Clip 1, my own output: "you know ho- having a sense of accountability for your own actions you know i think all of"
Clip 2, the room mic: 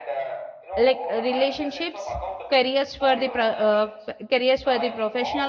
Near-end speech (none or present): present